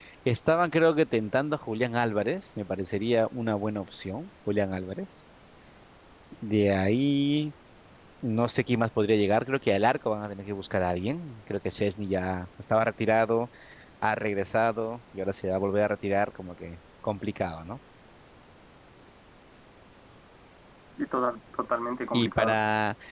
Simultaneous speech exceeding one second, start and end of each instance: none

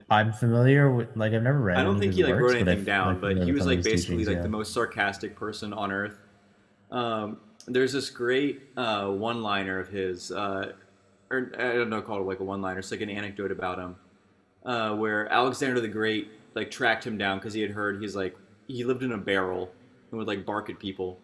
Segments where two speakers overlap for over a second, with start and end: 1.7-4.5

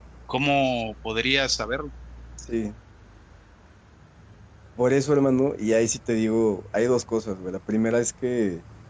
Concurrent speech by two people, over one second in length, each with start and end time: none

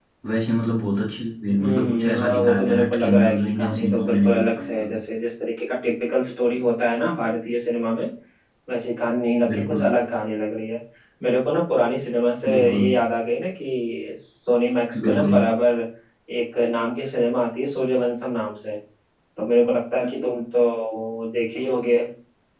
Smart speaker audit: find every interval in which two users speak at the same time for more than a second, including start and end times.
1.6-4.9

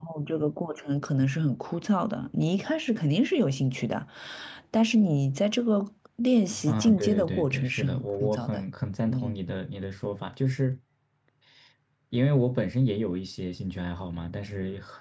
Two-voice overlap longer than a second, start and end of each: 6.7-8.6

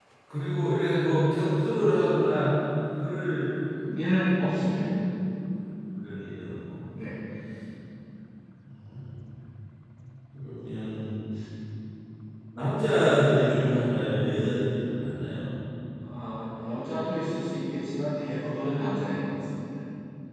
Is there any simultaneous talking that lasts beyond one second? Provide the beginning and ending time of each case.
none

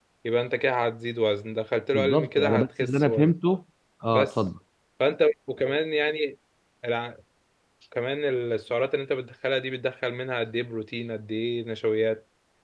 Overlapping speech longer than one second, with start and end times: 1.9-3.3

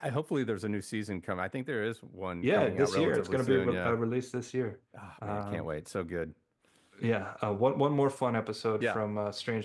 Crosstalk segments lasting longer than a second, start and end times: 2.4-4.0

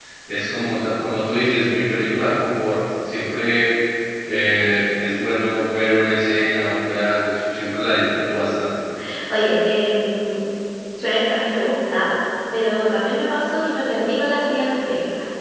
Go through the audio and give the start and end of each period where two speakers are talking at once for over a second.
none

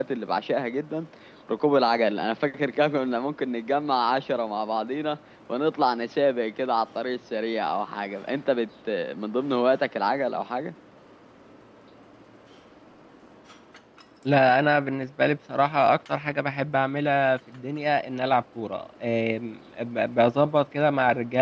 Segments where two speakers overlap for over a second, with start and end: none

